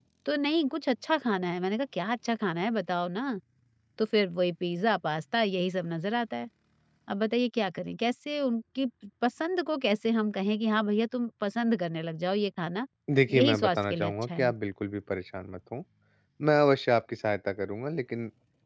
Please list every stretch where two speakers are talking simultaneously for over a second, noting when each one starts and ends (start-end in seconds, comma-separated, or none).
13.3-14.5